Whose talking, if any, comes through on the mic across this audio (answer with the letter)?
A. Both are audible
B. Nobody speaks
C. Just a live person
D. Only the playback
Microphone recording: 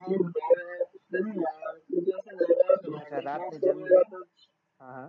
A